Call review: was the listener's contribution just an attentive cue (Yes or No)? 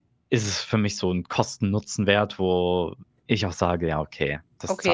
No